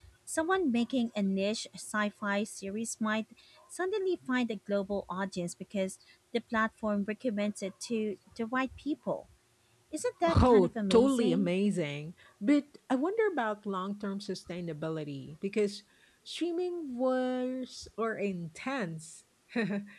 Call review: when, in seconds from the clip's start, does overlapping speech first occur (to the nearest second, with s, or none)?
10 s